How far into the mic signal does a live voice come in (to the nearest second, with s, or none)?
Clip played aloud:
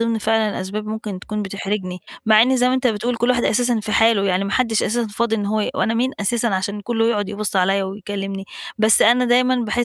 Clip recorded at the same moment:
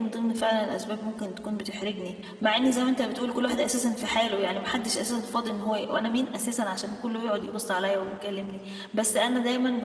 none